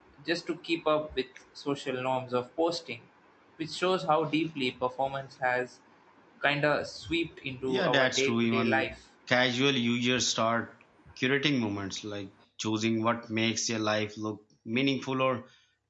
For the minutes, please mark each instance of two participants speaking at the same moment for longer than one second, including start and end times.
7.7-8.9

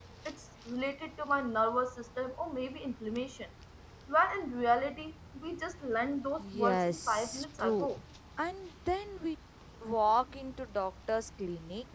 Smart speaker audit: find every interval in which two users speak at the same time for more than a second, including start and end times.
6.4-7.9

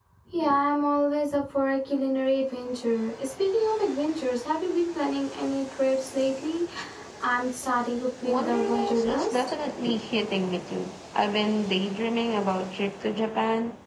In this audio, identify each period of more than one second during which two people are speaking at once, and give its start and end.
8.2-9.5

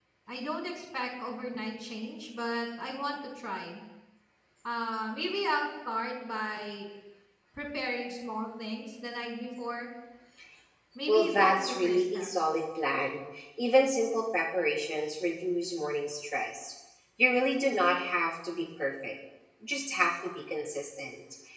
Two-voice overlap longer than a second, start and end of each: 11.1-12.3

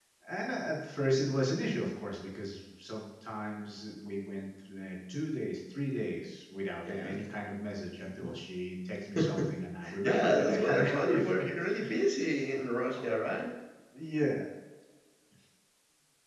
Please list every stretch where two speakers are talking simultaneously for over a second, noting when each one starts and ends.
10.0-11.5

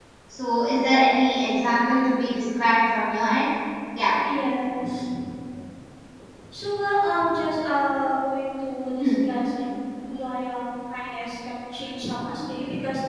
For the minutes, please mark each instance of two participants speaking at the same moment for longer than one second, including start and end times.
none

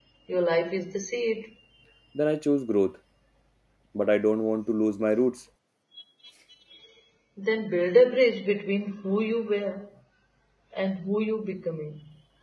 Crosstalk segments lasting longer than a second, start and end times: none

